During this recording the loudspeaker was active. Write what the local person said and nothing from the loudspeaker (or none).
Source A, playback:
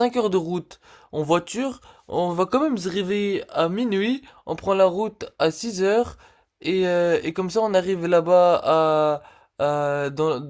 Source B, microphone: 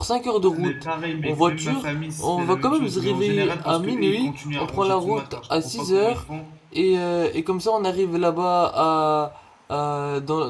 Ah, mais pareil, mec, même ma famille se fait la même chose. Mais en général, parce que eux, ils continuent à ranger tout le matin. Je comprends pas comment ils font.